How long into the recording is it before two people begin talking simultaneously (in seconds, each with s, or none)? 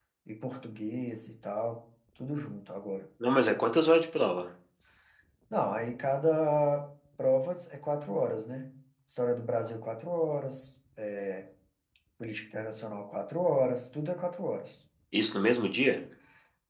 none